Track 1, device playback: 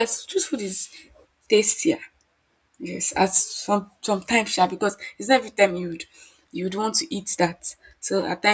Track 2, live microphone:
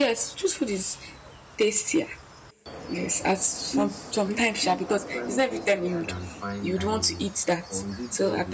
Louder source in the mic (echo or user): echo